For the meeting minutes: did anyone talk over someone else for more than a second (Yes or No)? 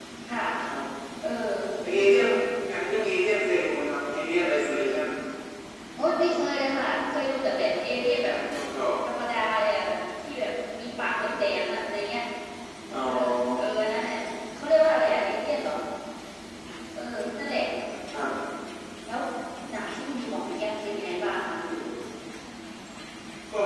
No